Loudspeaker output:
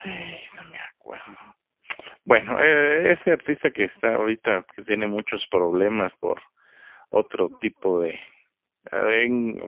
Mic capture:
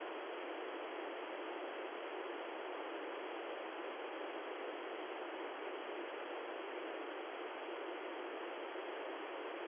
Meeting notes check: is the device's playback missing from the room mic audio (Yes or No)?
Yes